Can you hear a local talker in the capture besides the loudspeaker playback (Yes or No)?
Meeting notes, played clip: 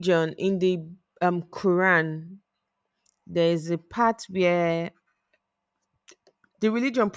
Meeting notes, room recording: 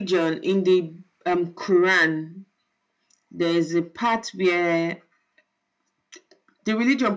No